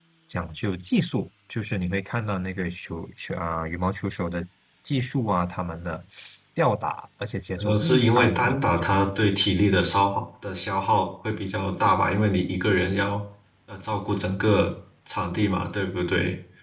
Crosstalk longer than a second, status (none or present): present